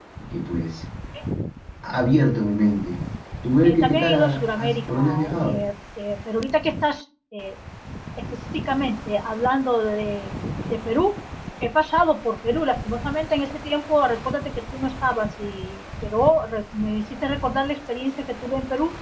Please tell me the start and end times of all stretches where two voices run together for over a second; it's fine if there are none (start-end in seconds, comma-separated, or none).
3.6-5.6